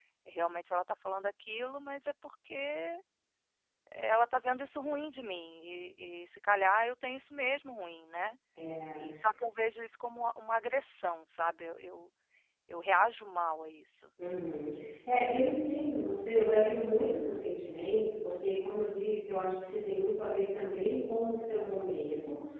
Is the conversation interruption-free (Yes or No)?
Yes